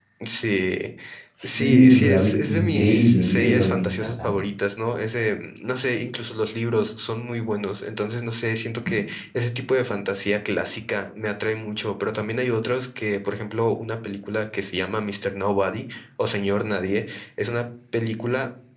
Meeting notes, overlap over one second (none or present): present